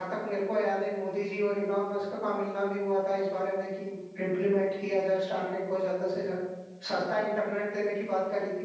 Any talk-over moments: No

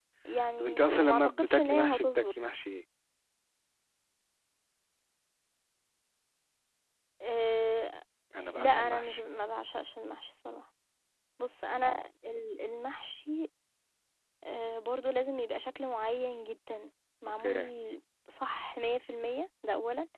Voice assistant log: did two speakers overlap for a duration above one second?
Yes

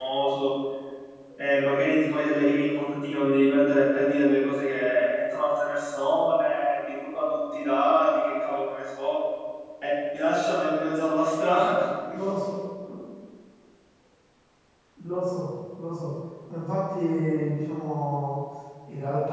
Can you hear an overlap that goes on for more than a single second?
No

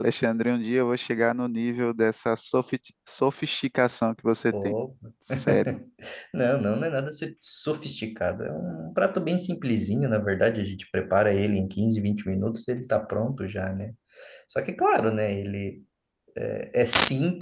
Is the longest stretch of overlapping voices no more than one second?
Yes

